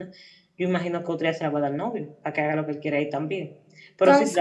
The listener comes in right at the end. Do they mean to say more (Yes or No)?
No